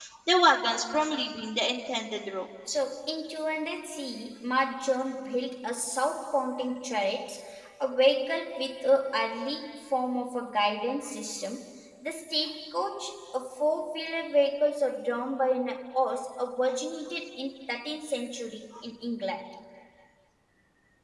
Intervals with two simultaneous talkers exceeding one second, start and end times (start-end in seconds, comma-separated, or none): none